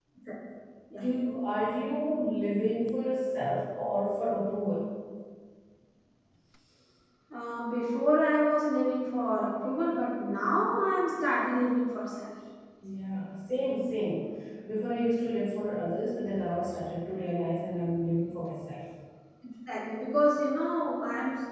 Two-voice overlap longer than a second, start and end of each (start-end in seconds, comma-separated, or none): none